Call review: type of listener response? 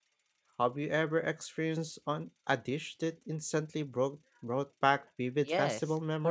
taking over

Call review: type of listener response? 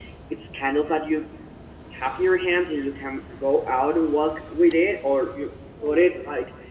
listening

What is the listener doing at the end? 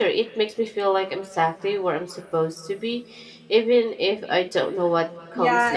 taking over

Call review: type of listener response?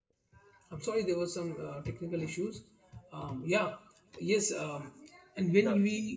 listening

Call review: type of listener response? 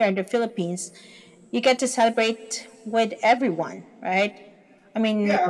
taking over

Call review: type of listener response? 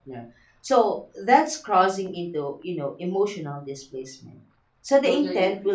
listening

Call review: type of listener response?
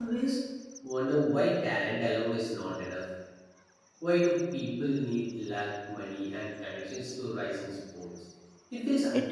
taking over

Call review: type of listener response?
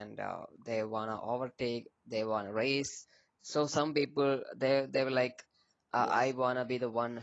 listening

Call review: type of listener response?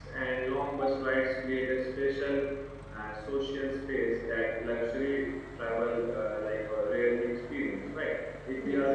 listening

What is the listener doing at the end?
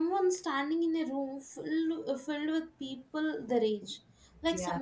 listening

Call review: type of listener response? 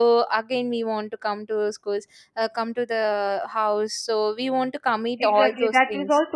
taking over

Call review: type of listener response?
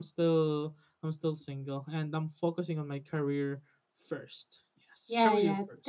taking over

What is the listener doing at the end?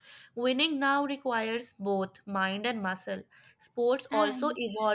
listening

